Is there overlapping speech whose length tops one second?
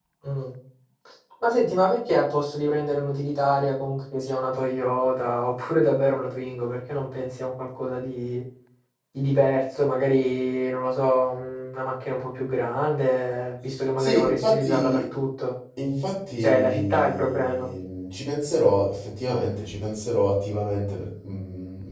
Yes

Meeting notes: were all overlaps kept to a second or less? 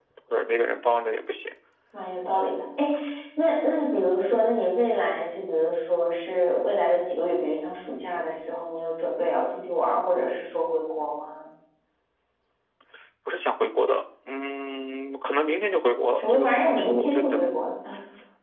No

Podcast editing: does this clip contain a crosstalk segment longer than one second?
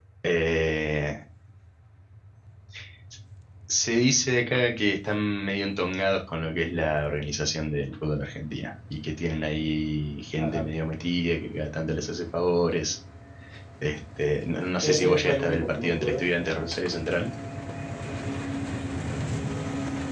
Yes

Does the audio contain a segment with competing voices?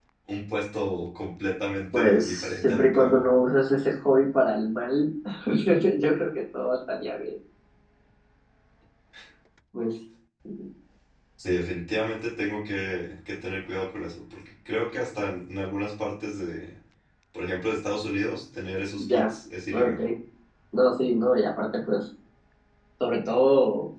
Yes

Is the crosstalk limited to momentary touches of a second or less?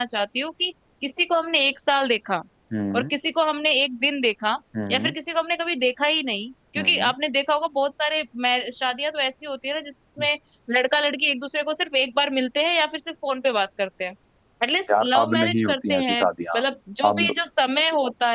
No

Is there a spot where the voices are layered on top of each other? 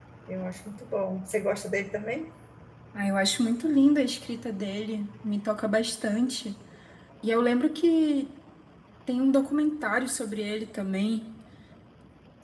No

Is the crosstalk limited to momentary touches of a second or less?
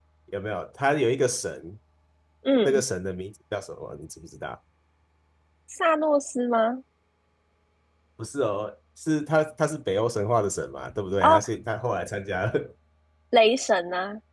Yes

